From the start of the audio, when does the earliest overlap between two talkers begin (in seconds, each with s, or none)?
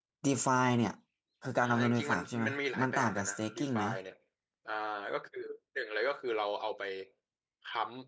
1.6 s